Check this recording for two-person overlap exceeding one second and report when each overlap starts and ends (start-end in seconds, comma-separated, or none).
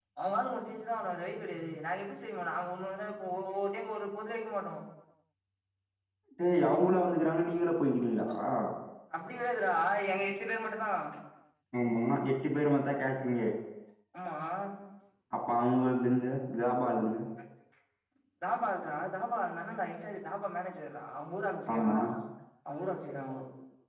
none